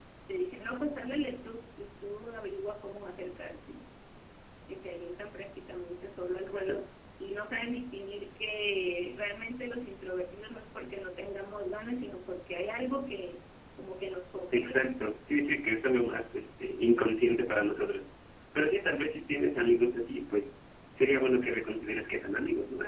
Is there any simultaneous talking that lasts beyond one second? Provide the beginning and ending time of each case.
none

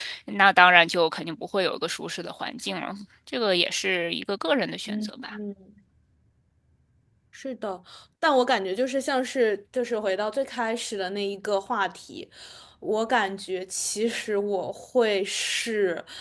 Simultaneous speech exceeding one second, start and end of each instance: none

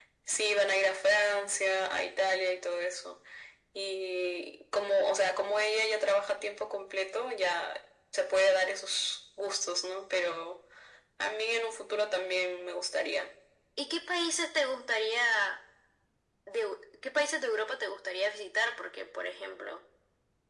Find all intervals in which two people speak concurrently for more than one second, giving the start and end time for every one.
none

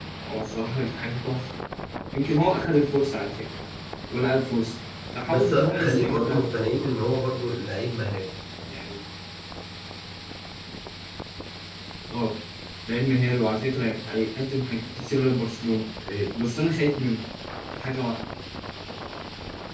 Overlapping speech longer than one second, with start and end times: 5.3-6.5

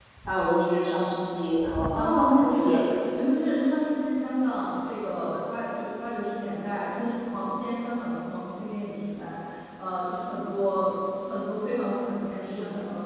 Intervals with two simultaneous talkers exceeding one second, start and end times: 1.9-3.3

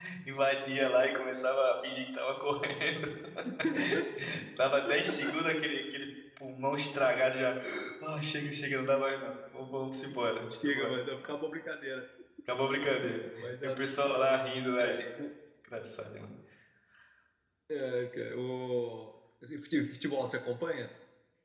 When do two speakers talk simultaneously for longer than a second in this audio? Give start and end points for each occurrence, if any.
none

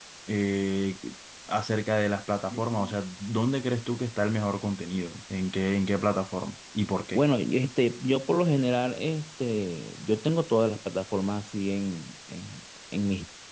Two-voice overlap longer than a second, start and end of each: none

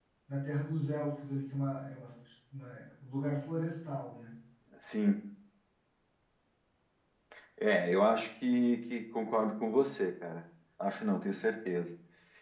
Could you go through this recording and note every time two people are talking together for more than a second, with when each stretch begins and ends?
none

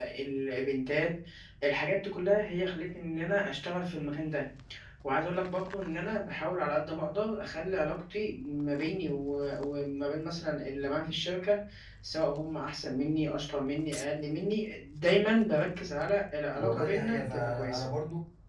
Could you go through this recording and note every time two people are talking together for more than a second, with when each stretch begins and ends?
16.6-17.8

